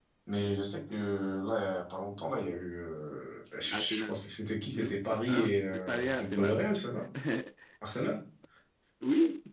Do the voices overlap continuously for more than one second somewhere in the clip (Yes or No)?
Yes